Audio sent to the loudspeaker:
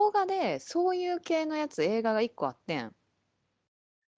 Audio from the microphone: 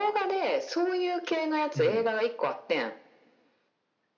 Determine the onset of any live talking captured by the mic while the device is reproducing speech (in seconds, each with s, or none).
1.7 s